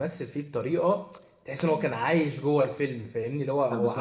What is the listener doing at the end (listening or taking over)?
taking over